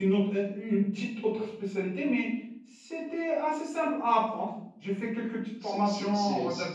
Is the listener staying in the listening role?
No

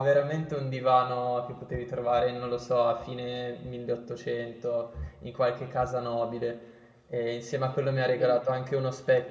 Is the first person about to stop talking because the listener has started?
No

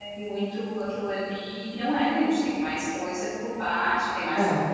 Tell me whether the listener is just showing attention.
Yes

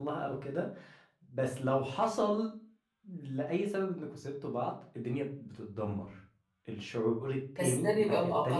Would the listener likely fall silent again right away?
No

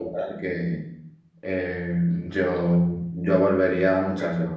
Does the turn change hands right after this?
Yes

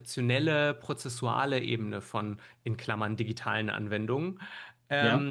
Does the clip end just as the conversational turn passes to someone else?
No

